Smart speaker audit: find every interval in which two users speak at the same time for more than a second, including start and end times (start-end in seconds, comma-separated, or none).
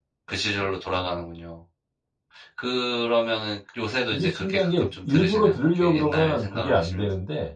4.1-7.1